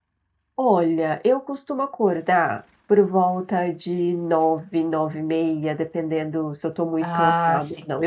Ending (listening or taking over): listening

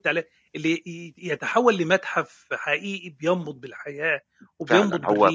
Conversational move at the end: taking over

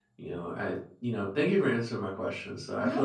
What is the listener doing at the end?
listening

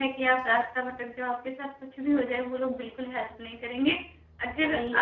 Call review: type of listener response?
listening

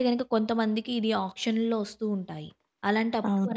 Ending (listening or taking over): listening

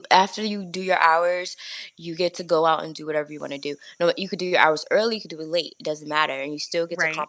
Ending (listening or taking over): listening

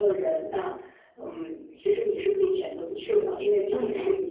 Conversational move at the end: listening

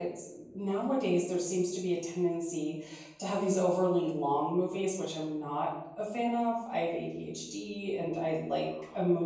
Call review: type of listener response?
listening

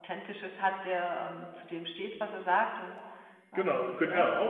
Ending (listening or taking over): taking over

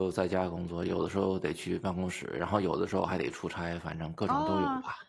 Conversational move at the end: taking over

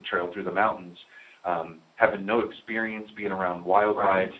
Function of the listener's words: listening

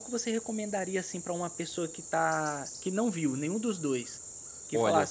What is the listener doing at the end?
listening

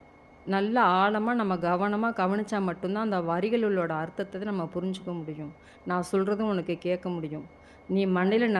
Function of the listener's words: listening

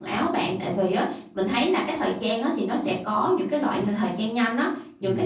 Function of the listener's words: listening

